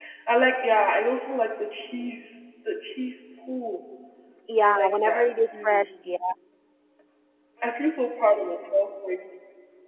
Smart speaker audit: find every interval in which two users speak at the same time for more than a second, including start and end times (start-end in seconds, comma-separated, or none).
4.6-5.9